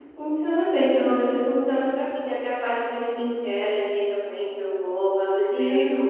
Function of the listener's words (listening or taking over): taking over